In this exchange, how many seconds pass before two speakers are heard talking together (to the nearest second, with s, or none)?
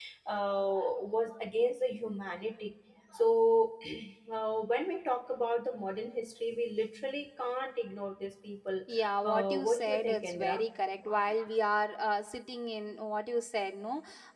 9 s